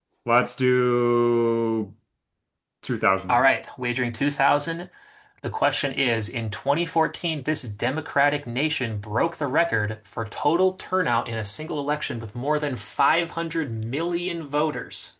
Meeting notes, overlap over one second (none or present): none